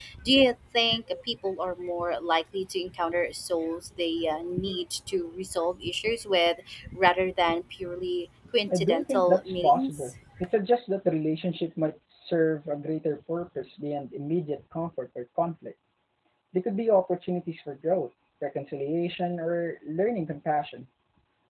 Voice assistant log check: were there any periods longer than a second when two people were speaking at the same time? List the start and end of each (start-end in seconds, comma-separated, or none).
8.7-10.1